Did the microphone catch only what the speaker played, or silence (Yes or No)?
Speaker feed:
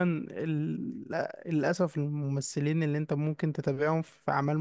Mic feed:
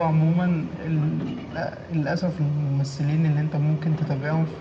Yes